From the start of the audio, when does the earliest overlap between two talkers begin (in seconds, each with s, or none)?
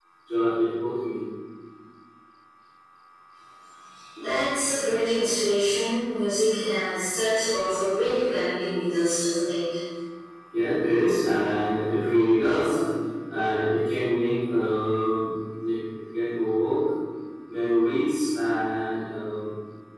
none